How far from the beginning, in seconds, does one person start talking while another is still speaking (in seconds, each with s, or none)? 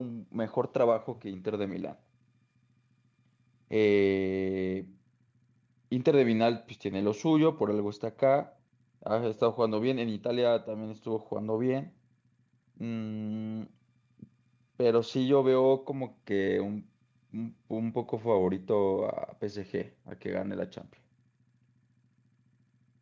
none